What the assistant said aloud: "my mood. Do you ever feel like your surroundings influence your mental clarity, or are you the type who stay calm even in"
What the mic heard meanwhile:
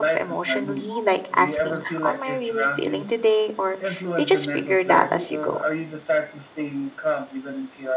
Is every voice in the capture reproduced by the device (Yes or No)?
No